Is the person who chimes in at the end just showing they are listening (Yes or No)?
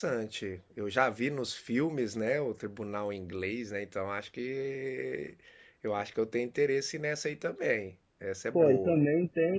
No